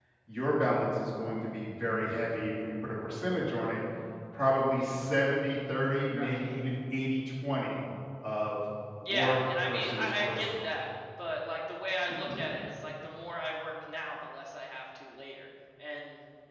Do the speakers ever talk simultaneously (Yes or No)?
Yes